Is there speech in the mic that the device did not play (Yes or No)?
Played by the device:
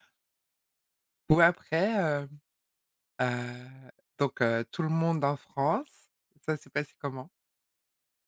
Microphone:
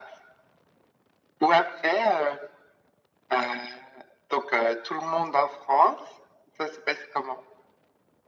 No